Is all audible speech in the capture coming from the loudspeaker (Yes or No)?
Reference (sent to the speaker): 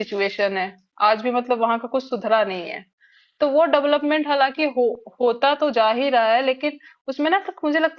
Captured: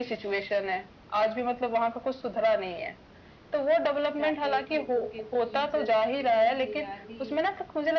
No